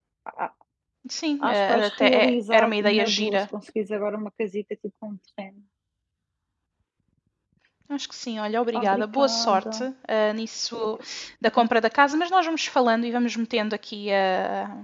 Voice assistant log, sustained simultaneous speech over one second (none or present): present